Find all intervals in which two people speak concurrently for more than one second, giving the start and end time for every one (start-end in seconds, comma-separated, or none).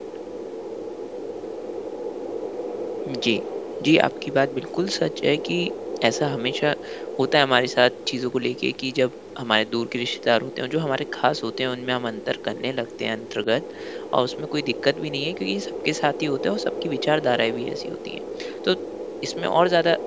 none